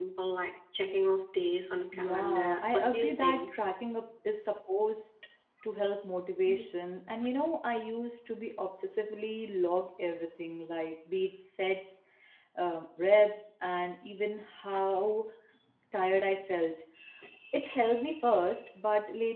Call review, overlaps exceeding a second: present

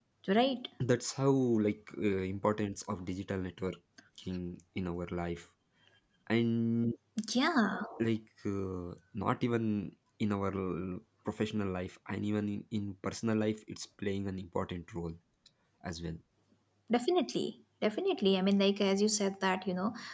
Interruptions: none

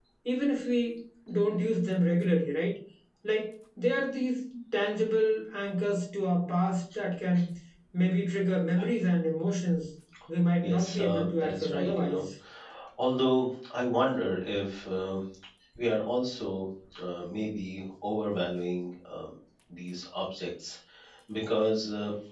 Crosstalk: present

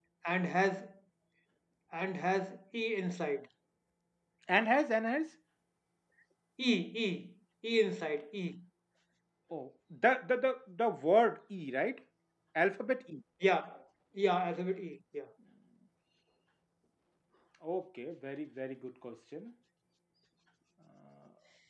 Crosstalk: none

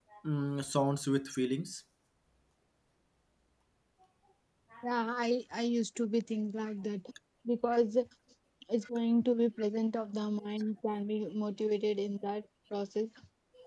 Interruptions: none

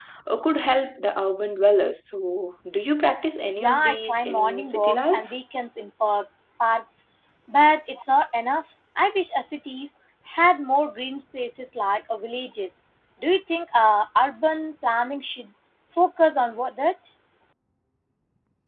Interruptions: present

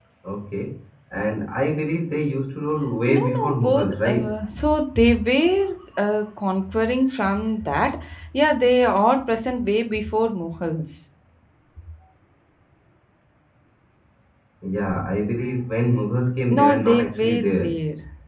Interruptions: present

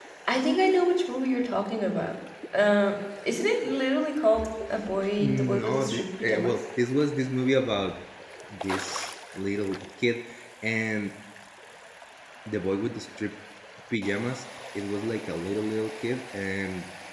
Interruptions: present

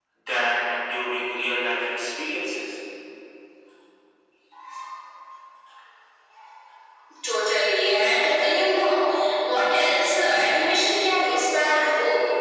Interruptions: none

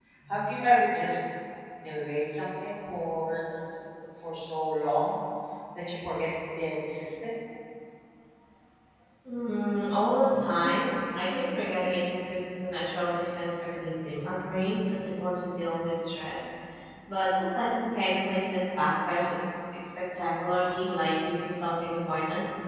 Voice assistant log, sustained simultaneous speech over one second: none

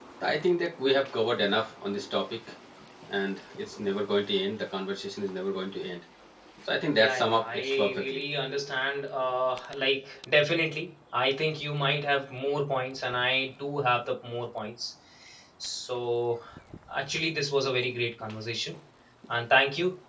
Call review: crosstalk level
present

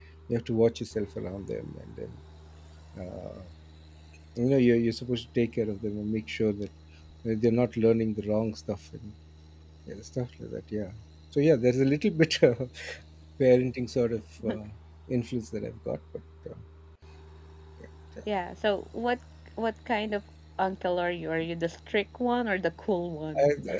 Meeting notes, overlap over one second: none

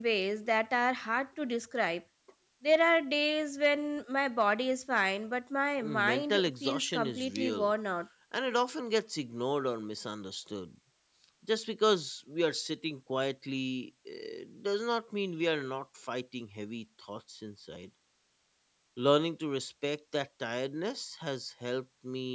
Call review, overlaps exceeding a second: present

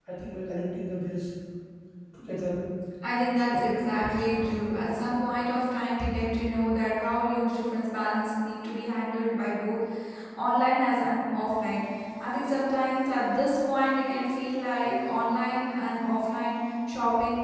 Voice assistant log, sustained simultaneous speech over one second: present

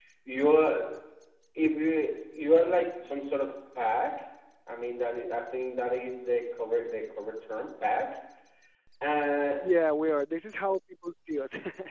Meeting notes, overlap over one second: none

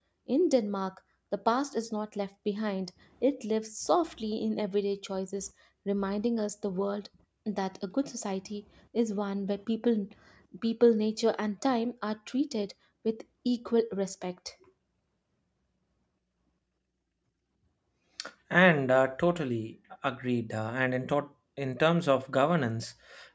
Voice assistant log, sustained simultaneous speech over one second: none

